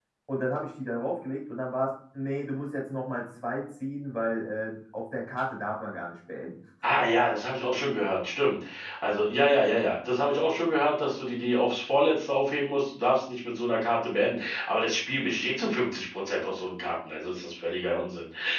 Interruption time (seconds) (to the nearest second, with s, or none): none